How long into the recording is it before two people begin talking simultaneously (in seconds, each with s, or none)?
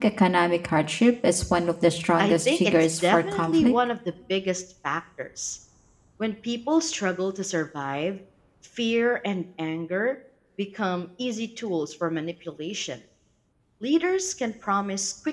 2.2 s